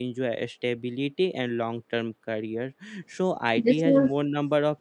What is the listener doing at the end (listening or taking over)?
listening